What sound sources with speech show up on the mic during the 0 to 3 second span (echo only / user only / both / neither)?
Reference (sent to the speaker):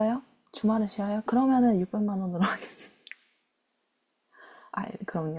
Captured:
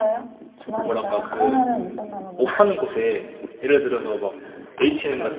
both